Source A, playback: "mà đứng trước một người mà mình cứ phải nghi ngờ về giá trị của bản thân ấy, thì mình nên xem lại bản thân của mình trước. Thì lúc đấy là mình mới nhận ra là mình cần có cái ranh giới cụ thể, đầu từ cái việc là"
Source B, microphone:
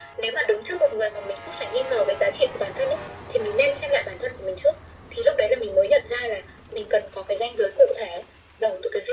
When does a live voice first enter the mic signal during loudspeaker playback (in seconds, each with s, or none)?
none